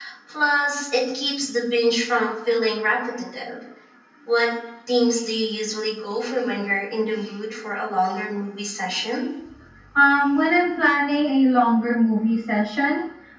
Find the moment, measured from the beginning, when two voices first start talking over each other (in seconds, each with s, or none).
none